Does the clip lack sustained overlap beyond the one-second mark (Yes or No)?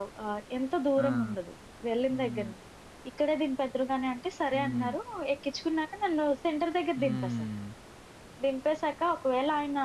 Yes